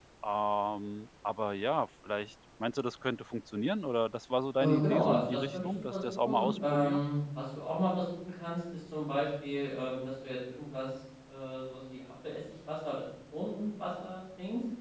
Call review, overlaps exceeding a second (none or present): present